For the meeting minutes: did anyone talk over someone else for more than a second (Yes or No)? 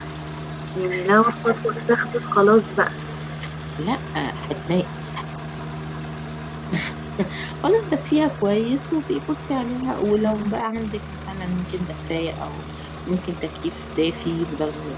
No